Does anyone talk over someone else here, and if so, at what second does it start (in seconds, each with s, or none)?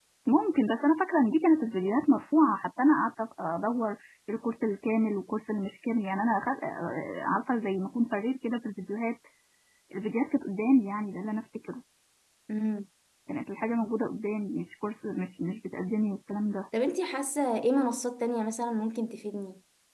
none